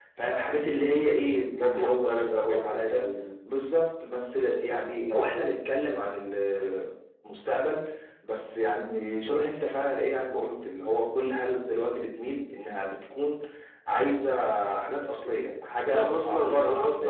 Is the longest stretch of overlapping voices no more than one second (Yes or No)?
No